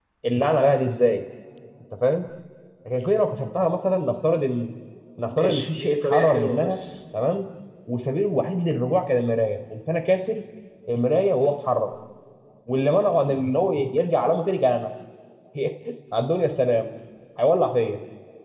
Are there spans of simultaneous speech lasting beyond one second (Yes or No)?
Yes